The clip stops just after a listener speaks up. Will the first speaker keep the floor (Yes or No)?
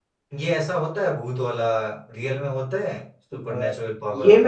No